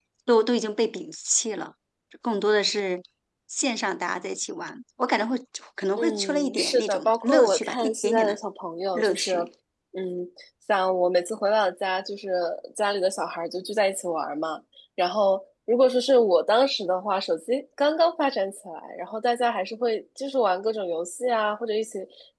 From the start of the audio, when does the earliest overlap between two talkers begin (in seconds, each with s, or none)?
6.0 s